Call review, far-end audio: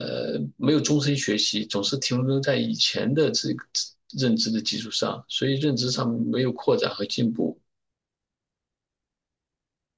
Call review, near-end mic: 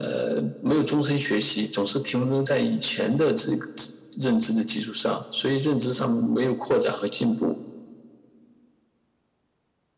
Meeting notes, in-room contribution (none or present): none